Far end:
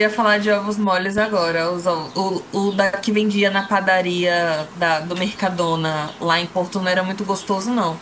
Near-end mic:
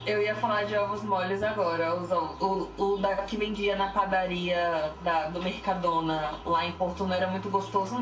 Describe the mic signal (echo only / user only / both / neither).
echo only